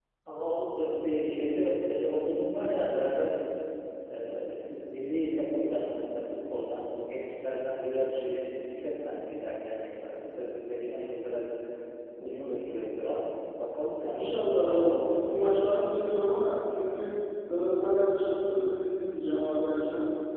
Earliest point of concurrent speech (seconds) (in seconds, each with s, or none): 14.1 s